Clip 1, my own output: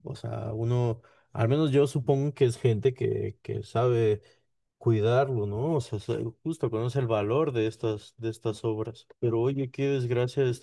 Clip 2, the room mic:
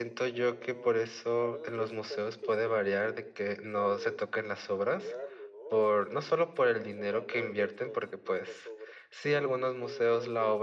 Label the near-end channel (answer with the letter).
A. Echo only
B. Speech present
B